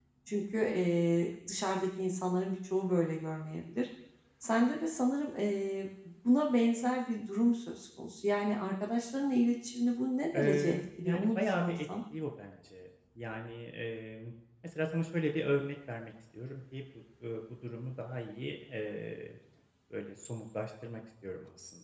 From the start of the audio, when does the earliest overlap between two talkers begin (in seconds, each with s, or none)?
10.3 s